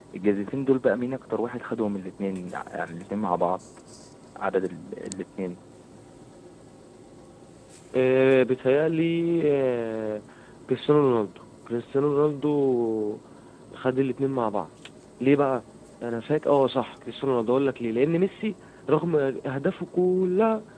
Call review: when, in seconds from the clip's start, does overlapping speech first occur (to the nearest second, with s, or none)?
none